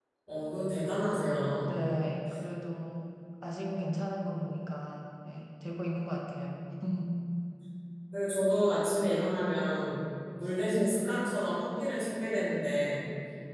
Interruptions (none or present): none